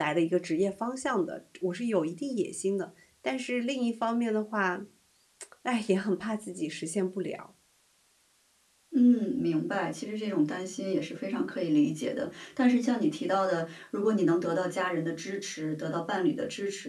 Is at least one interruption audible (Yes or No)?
No